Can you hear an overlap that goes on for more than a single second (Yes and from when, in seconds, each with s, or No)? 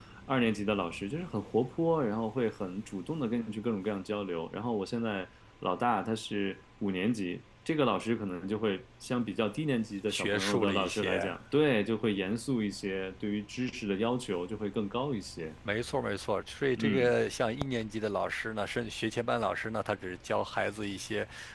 Yes, from 10.1 s